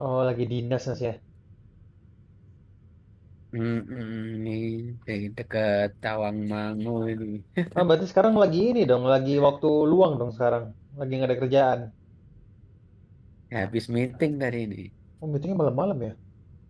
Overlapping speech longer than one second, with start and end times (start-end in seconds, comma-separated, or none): none